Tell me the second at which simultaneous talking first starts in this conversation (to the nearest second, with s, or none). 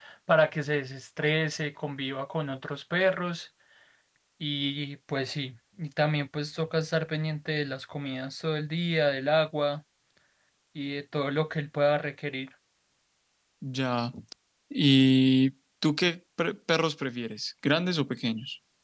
none